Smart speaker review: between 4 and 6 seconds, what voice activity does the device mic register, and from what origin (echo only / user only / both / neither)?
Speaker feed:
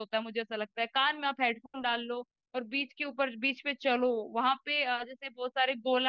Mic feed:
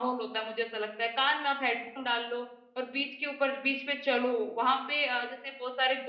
echo only